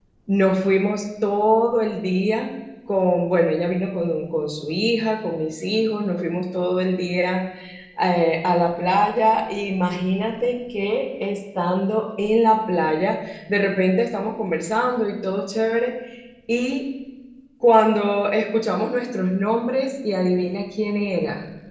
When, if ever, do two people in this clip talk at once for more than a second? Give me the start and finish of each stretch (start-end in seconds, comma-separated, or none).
none